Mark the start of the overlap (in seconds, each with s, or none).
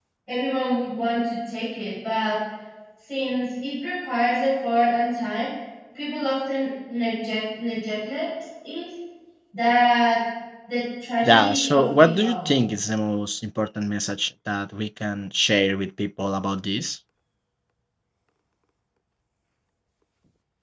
11.2 s